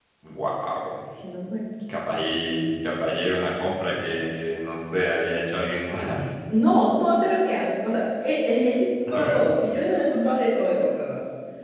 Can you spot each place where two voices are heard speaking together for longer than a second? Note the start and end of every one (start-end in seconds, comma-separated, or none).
none